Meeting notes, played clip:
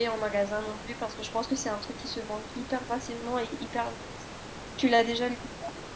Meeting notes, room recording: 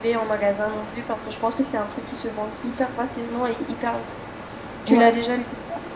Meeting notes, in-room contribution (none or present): present